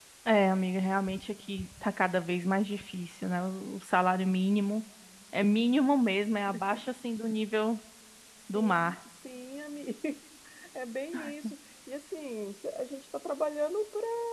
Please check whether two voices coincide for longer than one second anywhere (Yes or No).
No